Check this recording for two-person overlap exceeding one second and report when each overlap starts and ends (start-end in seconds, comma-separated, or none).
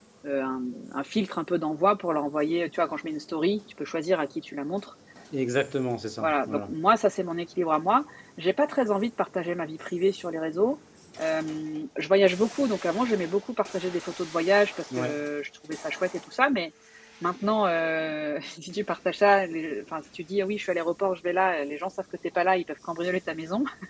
none